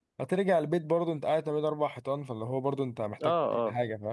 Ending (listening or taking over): taking over